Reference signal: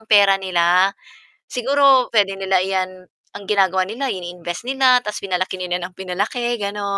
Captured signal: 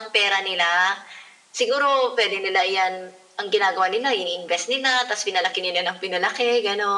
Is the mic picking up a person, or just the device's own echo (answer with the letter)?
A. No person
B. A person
A